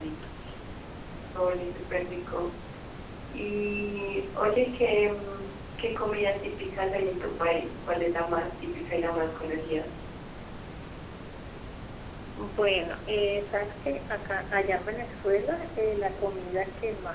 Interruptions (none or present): none